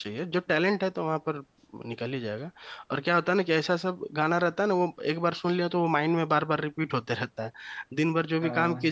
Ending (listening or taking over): listening